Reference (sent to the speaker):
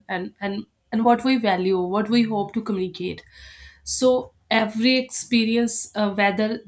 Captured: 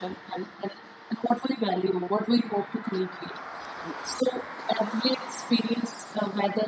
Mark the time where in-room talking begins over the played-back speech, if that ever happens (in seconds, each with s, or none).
none